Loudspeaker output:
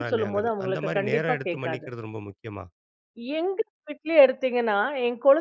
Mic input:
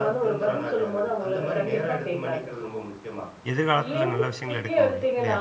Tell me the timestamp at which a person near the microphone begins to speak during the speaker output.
3.5 s

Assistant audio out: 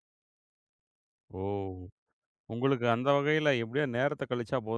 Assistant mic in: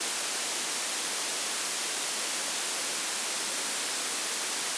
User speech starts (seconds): none

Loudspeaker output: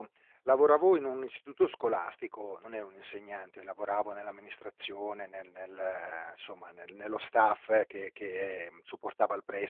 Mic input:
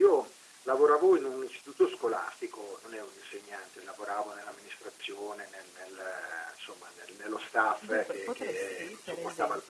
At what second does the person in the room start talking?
7.8 s

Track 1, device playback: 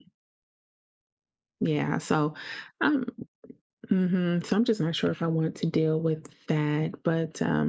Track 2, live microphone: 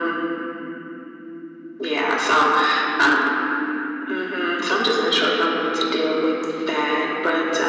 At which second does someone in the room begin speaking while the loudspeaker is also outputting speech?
none

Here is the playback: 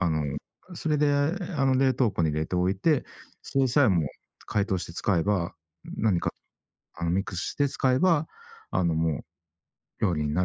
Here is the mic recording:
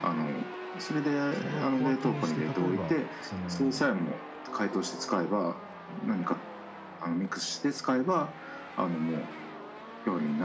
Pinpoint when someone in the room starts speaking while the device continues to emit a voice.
1.3 s

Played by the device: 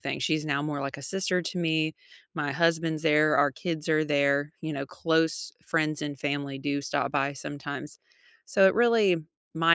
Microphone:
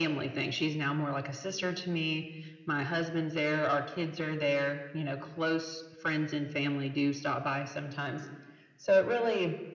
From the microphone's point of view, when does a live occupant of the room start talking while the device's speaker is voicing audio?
none

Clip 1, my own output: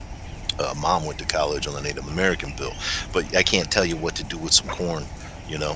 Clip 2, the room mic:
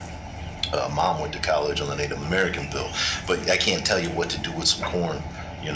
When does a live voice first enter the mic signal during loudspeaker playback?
none

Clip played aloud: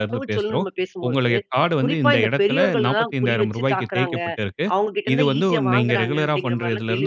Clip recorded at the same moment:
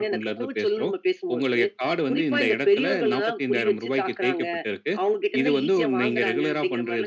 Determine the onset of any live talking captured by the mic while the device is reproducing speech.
none

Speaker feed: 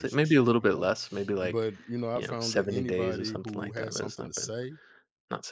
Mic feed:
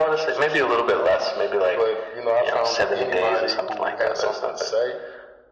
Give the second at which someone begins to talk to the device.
none

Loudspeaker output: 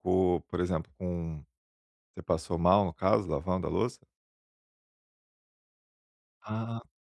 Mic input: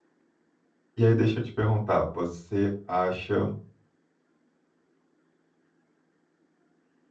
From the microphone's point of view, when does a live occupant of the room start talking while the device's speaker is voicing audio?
1.0 s

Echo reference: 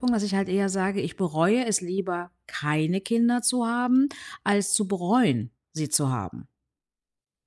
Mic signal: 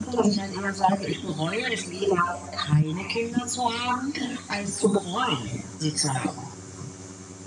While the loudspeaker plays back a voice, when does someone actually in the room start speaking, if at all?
none

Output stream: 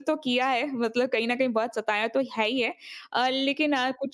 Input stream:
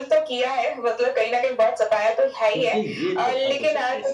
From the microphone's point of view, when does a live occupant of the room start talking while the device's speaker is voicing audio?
2.5 s

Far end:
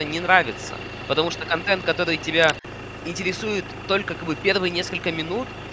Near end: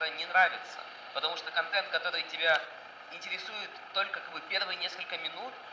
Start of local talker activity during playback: none

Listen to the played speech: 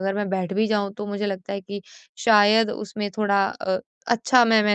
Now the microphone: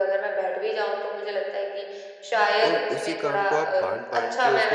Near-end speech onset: 2.7 s

